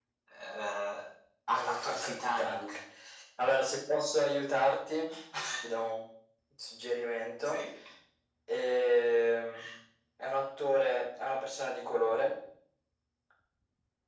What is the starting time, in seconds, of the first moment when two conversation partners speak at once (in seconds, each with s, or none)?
1.5 s